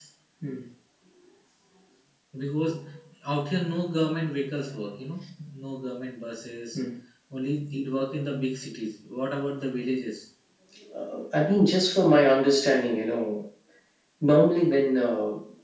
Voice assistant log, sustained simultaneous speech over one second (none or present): none